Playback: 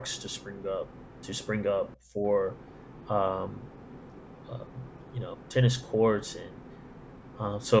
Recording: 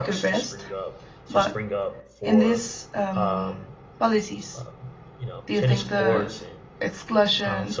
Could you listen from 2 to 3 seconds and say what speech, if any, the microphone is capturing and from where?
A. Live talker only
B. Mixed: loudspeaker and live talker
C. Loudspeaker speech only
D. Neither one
B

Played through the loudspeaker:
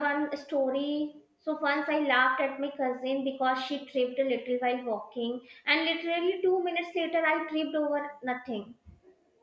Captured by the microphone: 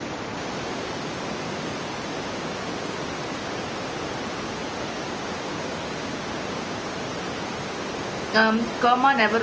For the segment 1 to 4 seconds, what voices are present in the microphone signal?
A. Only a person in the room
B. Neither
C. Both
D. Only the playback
B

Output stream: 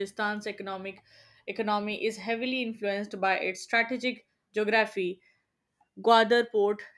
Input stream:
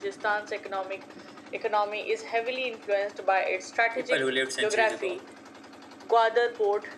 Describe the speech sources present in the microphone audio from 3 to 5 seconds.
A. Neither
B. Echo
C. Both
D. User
C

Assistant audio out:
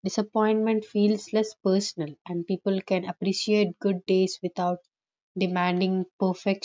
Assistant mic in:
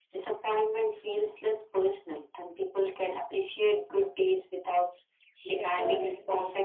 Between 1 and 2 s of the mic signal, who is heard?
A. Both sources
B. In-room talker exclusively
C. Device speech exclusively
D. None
C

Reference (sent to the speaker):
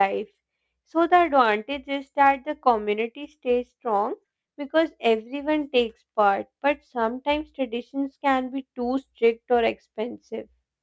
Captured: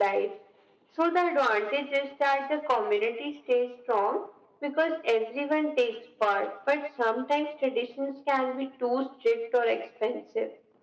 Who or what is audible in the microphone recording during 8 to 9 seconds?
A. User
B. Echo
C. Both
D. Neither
B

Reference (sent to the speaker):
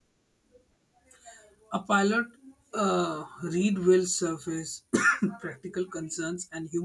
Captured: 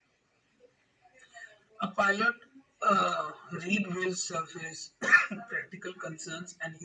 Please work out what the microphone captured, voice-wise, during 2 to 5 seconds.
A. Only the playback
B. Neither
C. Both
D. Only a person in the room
A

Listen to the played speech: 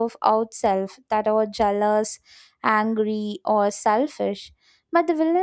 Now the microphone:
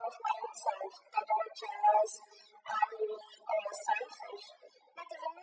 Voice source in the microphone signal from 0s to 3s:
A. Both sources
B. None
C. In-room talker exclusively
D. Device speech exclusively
D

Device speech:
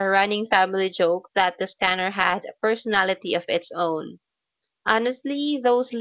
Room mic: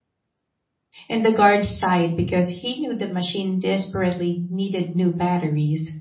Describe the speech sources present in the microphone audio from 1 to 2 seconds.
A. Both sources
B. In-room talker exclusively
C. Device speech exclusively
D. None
B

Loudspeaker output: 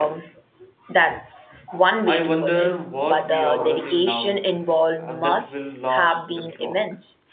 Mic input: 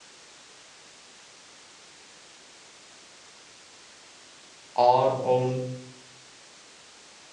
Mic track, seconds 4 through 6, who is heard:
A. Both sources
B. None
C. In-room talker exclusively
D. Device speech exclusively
C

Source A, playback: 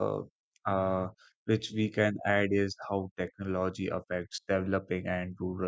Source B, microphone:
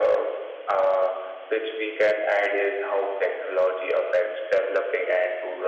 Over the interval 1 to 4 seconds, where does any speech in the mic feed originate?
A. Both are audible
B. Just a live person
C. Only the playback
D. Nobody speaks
C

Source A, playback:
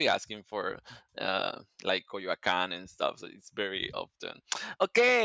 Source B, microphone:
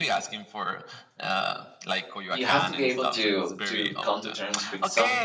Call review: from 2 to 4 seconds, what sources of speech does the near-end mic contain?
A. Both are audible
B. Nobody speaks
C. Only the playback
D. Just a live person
A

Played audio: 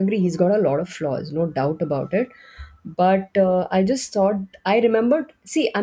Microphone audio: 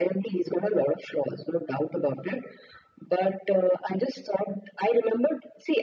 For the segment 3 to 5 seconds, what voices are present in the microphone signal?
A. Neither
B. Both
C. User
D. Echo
D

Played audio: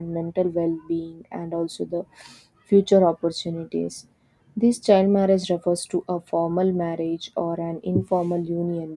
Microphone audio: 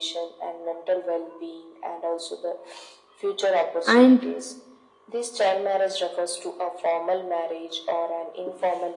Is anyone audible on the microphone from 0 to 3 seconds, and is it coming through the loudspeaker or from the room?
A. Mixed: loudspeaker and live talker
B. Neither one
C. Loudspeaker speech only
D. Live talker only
C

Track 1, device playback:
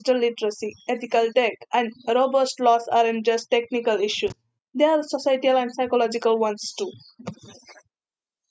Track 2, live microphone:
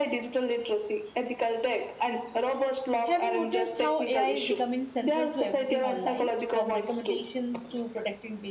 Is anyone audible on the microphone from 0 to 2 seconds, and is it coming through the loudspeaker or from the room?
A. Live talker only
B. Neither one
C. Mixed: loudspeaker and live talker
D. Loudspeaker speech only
D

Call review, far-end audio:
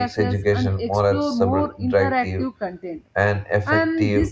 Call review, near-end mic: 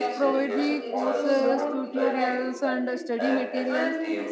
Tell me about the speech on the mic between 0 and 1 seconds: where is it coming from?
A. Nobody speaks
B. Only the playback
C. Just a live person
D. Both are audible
D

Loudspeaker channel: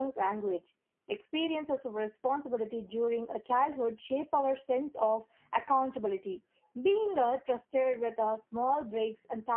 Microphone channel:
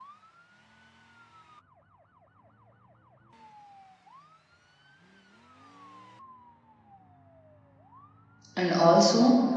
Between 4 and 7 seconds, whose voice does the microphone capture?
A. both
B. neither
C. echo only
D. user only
B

